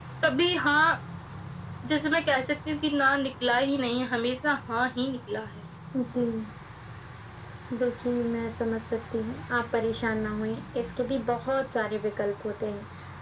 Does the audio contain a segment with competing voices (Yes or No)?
No